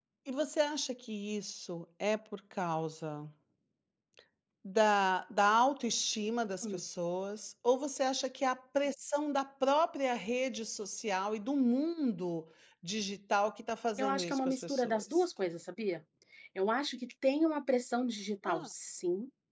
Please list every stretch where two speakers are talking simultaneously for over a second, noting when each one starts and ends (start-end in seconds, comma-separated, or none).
14.0-15.2